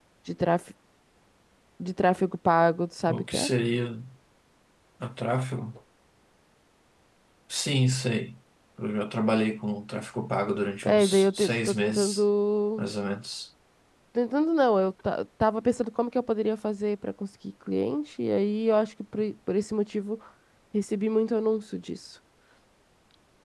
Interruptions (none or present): present